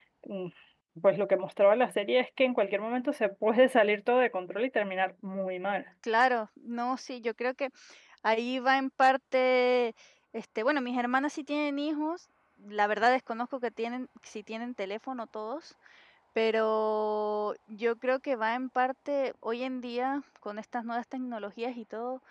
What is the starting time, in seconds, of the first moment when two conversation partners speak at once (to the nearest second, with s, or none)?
none